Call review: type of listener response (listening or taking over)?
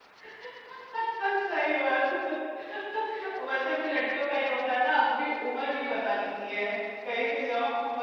listening